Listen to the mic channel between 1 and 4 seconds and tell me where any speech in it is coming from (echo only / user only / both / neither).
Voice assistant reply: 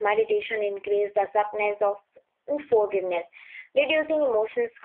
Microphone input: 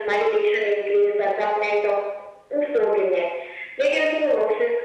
echo only